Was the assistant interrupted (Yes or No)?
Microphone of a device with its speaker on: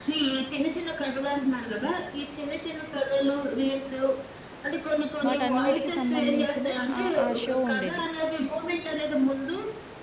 Yes